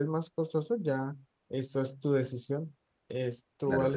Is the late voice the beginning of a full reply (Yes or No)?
Yes